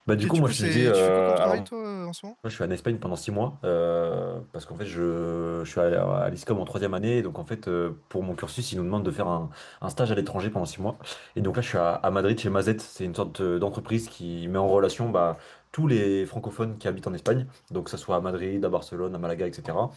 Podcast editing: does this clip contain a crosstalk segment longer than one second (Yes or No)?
Yes